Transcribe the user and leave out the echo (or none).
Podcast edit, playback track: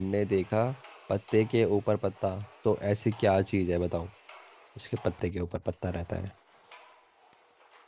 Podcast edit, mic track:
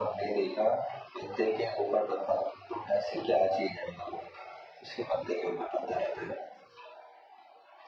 none